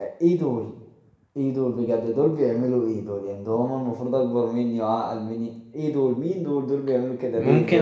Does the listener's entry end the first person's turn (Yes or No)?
Yes